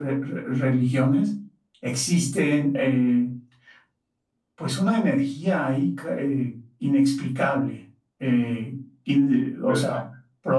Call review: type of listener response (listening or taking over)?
listening